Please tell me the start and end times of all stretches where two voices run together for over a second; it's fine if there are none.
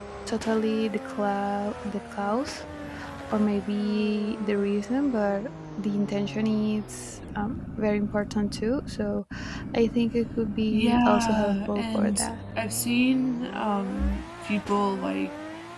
10.7-12.3

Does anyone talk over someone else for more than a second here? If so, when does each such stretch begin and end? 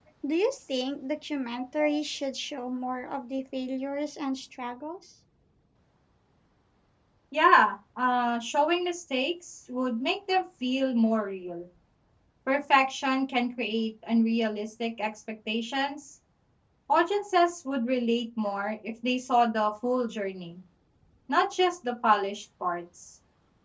none

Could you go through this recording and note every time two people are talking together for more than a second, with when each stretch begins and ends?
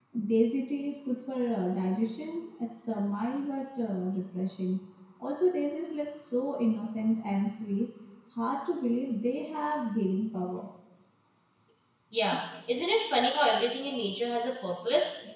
none

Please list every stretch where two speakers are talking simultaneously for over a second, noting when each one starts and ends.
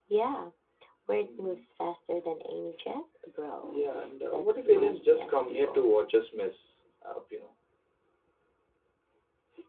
4.3-5.9

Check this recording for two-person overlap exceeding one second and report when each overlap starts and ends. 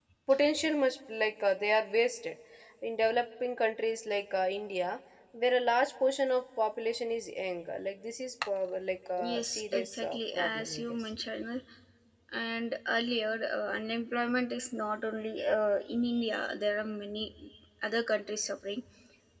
9.3-11.0

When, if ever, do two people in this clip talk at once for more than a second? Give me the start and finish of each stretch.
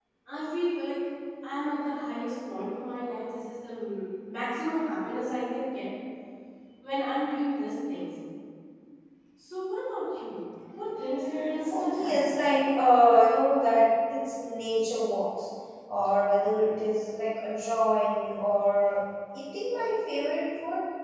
11.0-12.3

